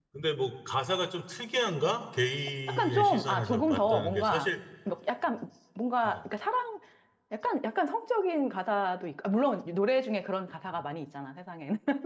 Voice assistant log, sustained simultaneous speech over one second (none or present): present